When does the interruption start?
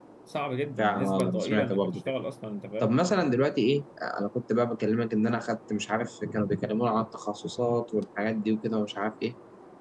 0.8 s

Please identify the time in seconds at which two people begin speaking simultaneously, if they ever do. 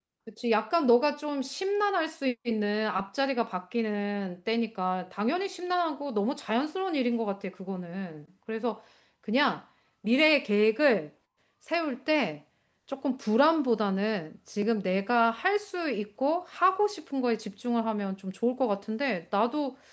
none

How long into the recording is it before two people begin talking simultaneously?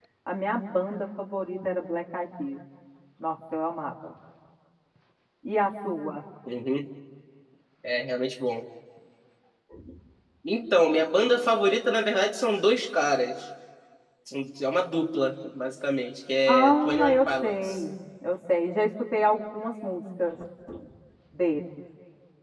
16.5 s

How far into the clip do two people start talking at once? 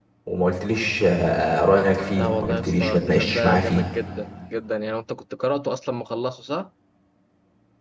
2.2 s

